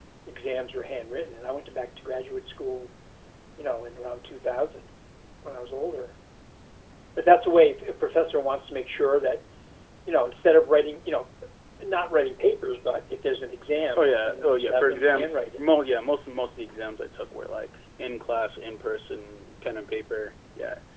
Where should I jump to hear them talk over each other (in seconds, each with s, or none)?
13.9 s